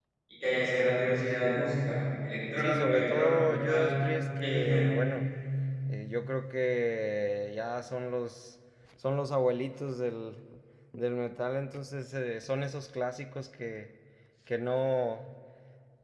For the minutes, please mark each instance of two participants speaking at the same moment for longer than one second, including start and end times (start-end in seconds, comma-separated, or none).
2.6-3.9